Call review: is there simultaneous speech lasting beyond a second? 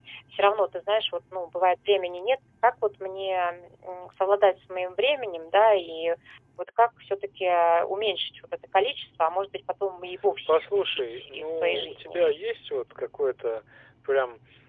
Yes, from 10.5 s

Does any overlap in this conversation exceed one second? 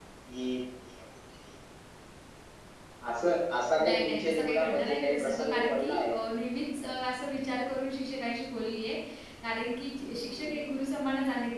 Yes, from 3.8 s

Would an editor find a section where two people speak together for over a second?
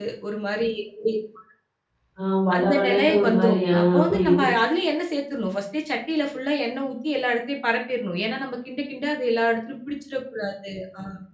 Yes, from 2.5 s

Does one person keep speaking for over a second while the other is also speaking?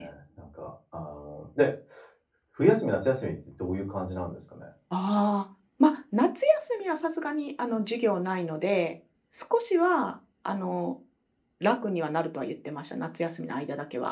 No

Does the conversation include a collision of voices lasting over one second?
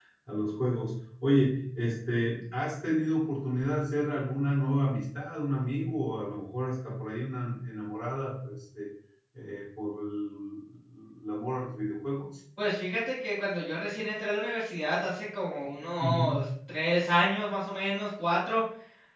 No

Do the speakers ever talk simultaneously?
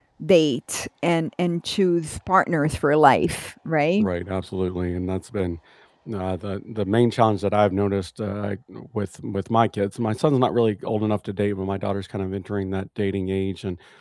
No

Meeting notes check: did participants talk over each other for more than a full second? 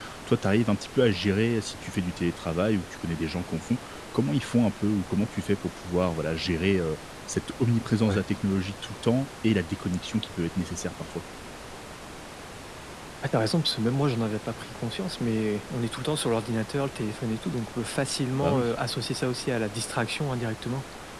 No

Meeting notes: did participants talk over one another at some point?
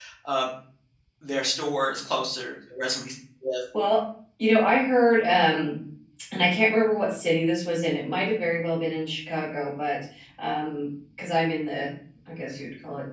No

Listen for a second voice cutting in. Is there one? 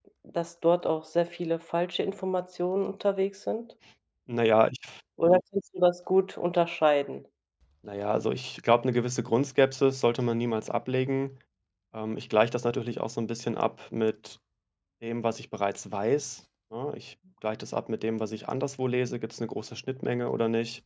No

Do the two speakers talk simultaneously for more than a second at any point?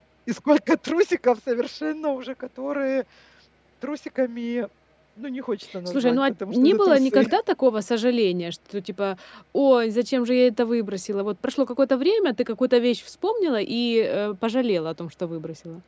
Yes, from 5.9 s

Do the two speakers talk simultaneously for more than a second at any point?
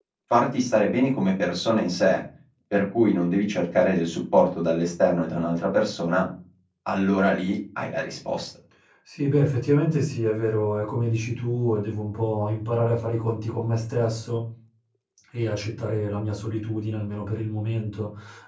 No

